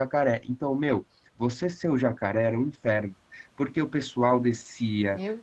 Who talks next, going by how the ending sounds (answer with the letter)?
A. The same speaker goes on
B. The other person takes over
A